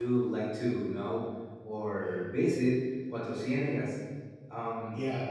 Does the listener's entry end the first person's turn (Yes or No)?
Yes